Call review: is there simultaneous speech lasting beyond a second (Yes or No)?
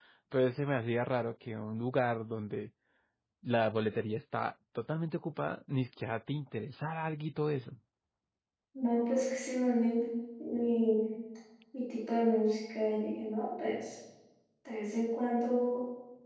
No